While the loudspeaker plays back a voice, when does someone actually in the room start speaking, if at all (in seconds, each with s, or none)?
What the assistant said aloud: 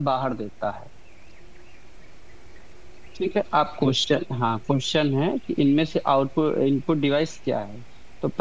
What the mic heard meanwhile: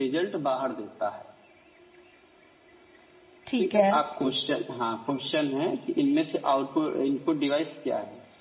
3.5 s